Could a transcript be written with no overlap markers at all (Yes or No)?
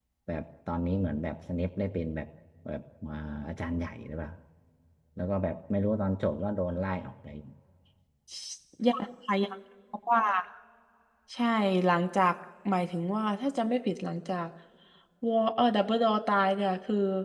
Yes